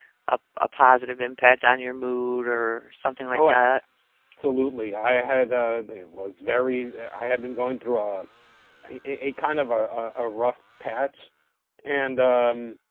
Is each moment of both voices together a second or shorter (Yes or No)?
Yes